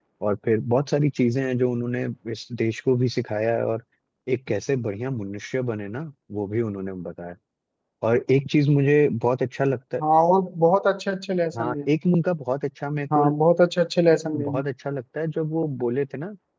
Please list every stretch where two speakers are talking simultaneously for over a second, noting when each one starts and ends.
none

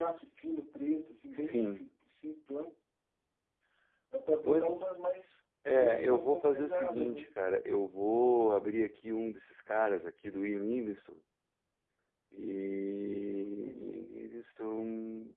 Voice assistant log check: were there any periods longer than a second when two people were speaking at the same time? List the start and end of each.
5.7-7.2

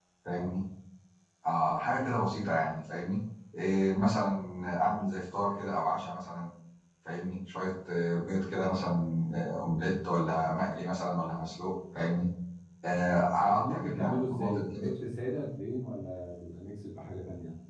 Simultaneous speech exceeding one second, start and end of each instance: 13.6-14.9

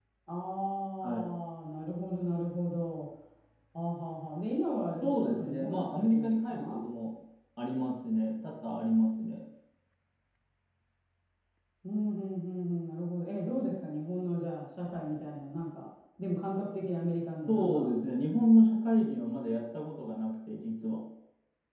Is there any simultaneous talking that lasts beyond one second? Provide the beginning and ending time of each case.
5.0-6.8

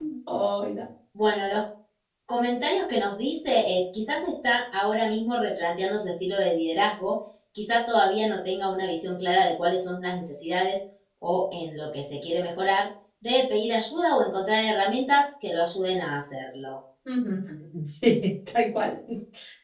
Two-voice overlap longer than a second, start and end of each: none

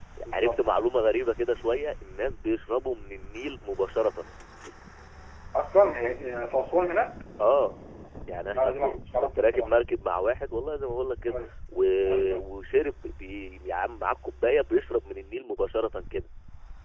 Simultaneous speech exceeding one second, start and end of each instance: 8.5-9.7

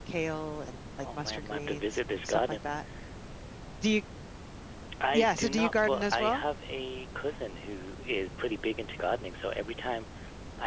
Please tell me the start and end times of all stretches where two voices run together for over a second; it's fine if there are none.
1.0-2.6, 5.1-6.4

